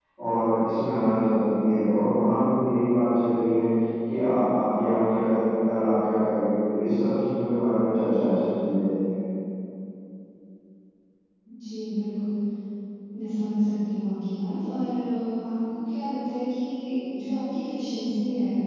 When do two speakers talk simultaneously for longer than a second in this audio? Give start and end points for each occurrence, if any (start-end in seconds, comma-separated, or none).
none